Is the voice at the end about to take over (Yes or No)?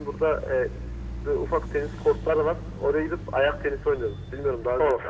Yes